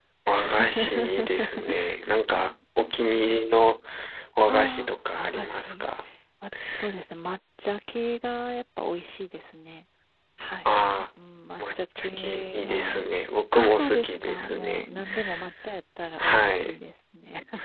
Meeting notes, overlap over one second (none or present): present